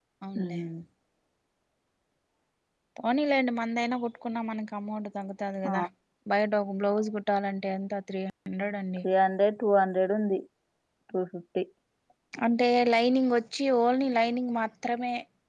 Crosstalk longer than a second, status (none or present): none